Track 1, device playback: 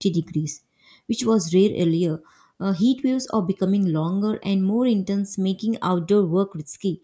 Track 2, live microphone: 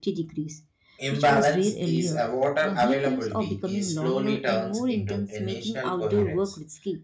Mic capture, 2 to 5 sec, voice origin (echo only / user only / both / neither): both